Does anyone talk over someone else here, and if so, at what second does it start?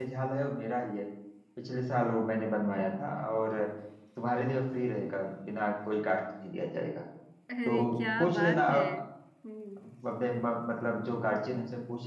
8 s

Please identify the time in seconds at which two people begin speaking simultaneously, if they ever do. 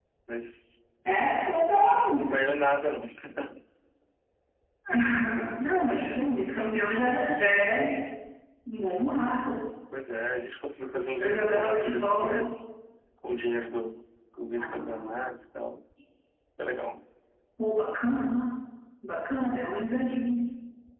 11 s

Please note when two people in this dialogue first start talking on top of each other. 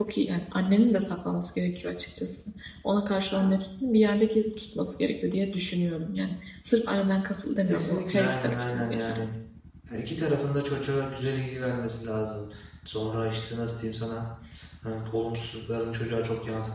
8 s

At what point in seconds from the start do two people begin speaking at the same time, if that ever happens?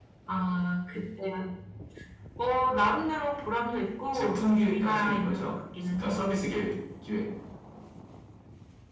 4 s

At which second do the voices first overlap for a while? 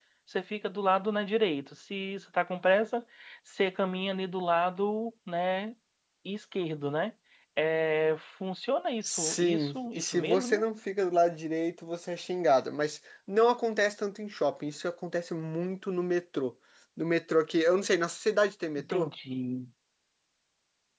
9 s

